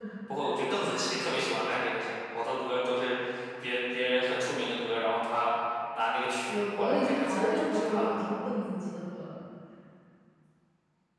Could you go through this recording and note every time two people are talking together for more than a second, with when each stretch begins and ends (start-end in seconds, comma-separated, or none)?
6.5-8.4